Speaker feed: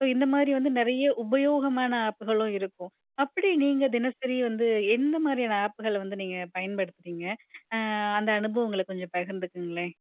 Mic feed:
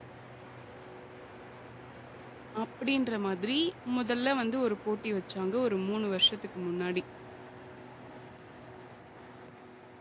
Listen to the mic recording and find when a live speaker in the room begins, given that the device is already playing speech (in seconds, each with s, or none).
2.6 s